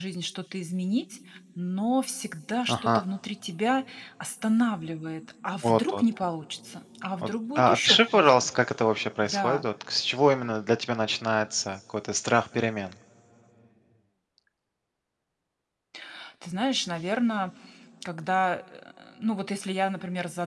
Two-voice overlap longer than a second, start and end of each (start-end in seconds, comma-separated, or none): 7.2-8.5